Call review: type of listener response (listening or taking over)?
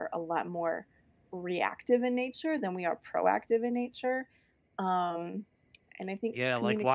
taking over